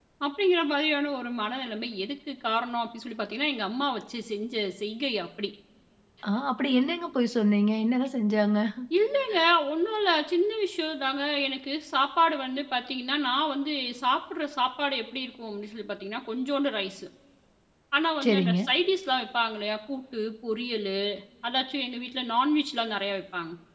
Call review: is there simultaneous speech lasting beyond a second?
No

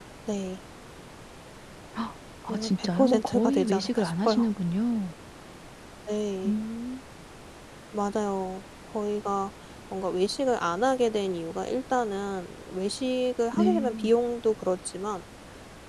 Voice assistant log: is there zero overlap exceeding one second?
No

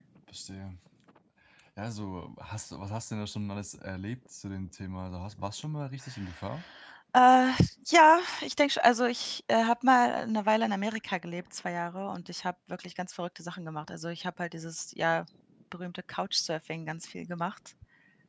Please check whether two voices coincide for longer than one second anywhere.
No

